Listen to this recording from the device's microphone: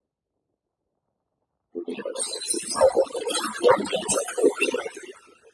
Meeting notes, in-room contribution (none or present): none